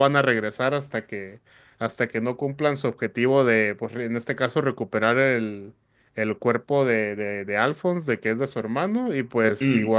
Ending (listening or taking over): listening